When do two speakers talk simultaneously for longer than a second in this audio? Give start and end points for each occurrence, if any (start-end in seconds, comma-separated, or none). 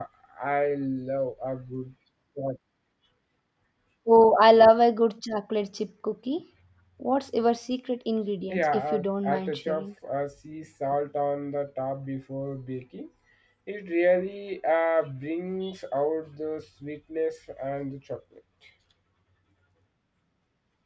8.5-9.9